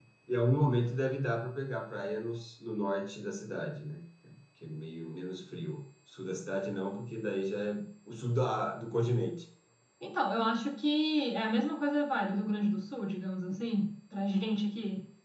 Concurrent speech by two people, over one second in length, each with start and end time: none

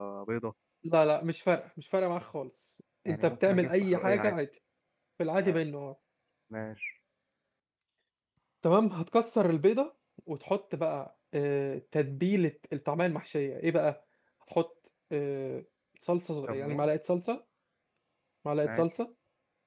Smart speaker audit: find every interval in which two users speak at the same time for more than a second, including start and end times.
3.1-4.3

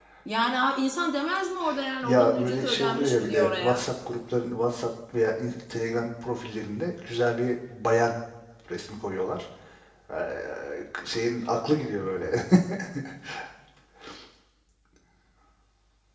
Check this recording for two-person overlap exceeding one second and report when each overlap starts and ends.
2.0-3.8

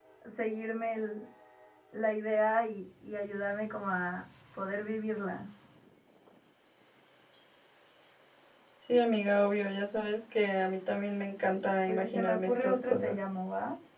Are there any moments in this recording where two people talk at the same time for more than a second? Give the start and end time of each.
11.9-13.2

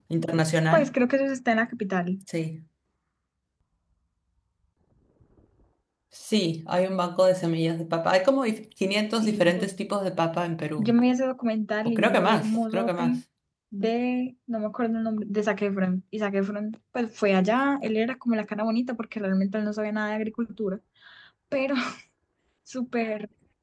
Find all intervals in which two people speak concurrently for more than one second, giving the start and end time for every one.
11.8-13.2

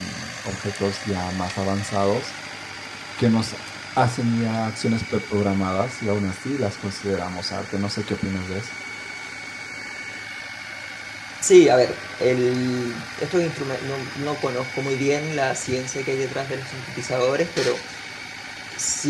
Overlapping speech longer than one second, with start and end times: none

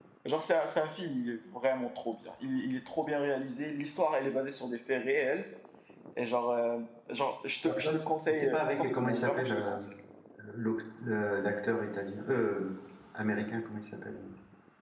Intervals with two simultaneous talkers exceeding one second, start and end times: 8.3-9.8

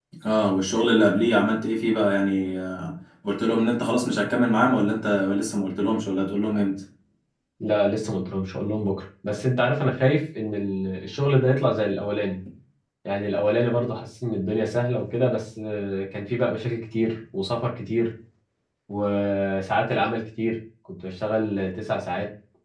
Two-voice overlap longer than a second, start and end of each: none

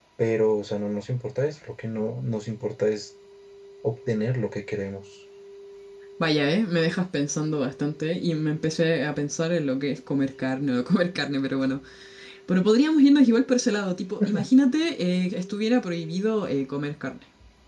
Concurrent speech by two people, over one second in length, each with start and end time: none

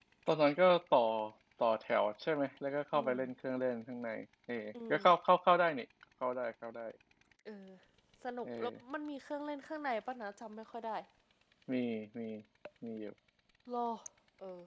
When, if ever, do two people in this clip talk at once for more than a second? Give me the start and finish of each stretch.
none

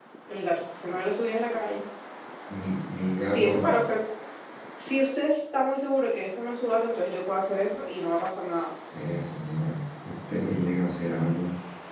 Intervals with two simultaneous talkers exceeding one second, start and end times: none

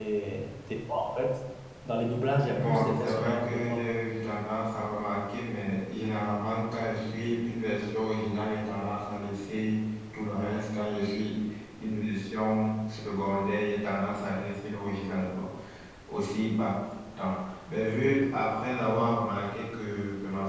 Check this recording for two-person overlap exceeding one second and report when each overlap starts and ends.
2.5-3.8

